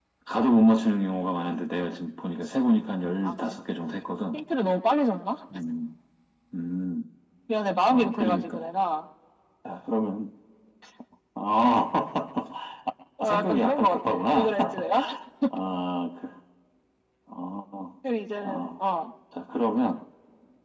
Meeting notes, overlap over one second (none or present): present